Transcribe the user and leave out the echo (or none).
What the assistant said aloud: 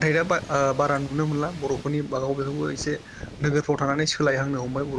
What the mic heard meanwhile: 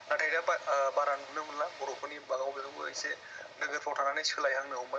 none